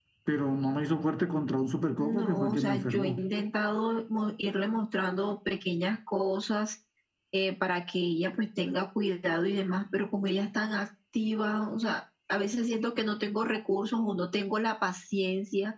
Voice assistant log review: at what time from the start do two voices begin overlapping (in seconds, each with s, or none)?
2.0 s